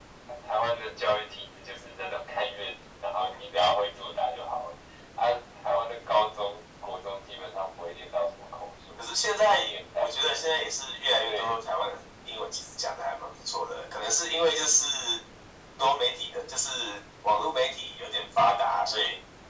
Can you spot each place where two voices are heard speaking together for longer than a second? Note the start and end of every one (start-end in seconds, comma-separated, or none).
9.0-10.5